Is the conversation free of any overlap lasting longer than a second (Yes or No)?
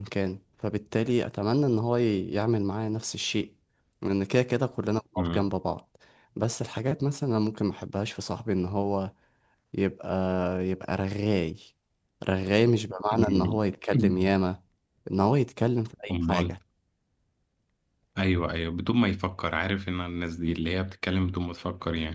Yes